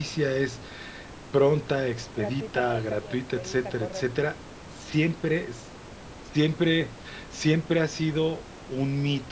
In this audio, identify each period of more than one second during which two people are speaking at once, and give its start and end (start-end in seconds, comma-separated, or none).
2.2-4.1